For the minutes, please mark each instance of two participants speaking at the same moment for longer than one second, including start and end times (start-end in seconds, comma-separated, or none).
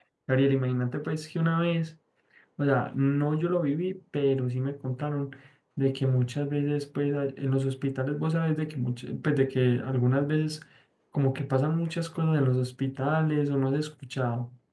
none